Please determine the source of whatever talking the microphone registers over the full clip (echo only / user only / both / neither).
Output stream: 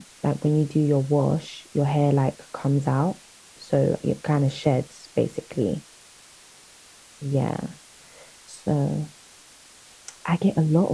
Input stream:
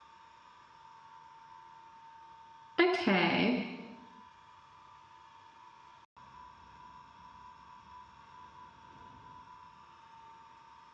user only